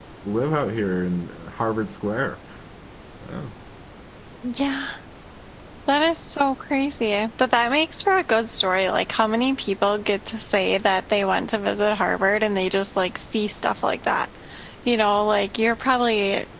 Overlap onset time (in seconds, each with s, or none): none